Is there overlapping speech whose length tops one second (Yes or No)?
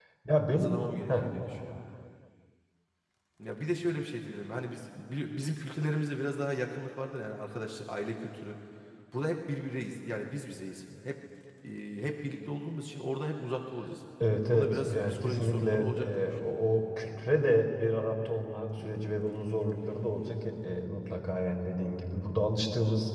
Yes